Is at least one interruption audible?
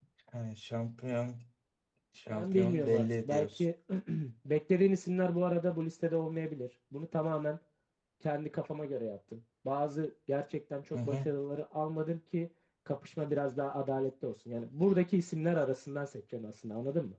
Yes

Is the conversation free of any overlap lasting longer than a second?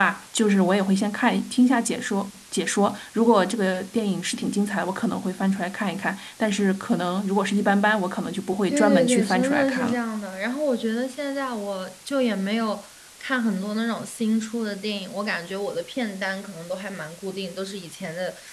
No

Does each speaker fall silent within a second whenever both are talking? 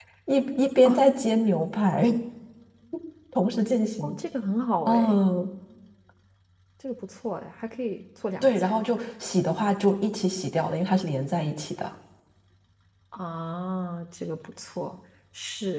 Yes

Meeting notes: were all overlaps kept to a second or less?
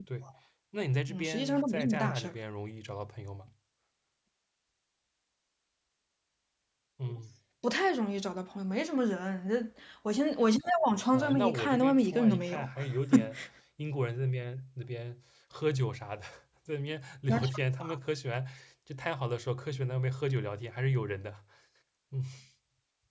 No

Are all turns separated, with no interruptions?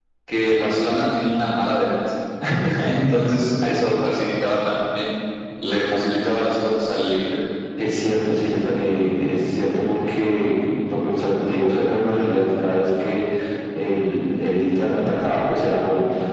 Yes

